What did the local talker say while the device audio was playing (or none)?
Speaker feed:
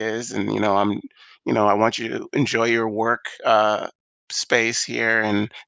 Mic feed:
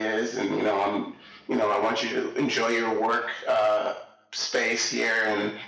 none